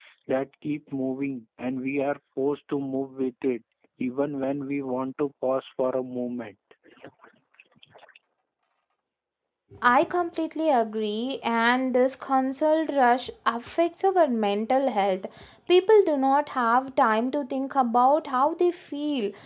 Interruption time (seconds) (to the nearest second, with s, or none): none